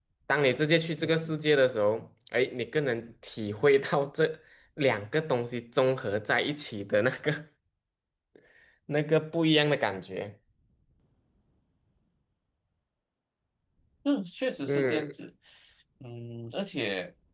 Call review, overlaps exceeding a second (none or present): none